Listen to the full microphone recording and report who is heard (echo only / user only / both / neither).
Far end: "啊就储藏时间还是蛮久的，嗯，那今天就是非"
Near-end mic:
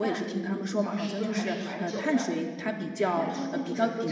both